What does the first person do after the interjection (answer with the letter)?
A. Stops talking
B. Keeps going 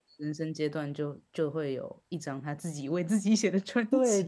A